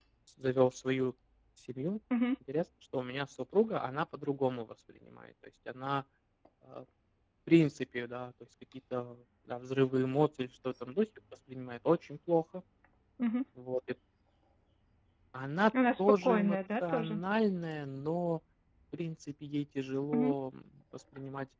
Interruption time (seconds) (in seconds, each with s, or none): 16.0 s